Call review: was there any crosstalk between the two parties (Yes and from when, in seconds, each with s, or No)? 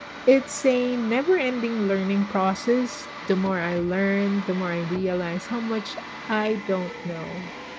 No